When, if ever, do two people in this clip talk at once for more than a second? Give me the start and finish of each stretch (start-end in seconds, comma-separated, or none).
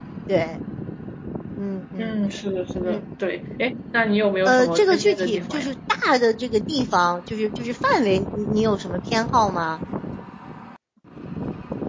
4.5-5.7